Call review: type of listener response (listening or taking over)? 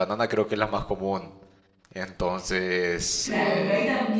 taking over